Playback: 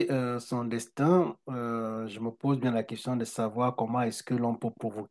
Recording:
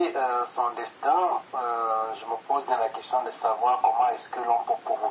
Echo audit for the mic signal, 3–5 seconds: echo only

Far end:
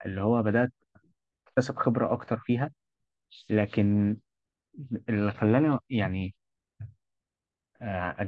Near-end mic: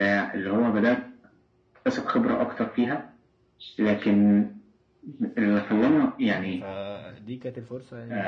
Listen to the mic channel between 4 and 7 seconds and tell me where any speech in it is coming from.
both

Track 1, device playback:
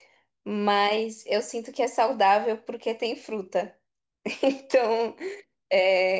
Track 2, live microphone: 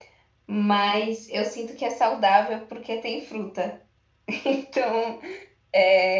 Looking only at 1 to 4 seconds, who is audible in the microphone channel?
echo only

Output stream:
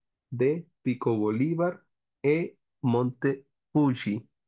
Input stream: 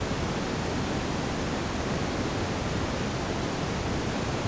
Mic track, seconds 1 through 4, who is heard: neither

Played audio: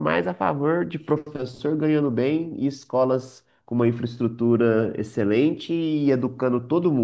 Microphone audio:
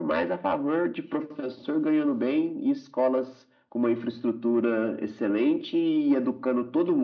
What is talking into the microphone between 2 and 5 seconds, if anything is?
echo only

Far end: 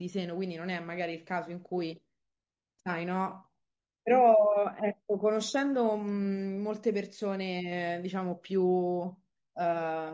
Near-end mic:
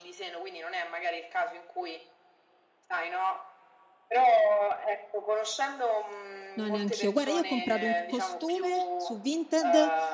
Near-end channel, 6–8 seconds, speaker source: both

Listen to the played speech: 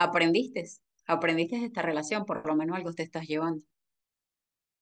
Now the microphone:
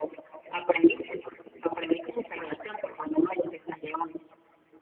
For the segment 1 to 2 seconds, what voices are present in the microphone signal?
echo only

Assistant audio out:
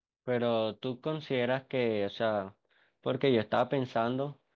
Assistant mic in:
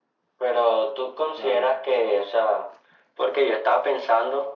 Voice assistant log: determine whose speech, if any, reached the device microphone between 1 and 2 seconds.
both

